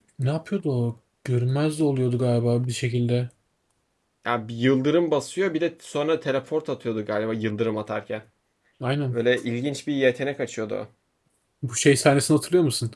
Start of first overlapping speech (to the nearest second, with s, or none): none